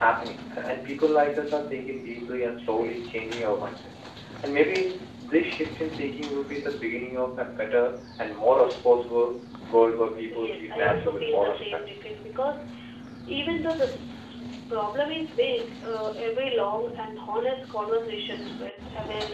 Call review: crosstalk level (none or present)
present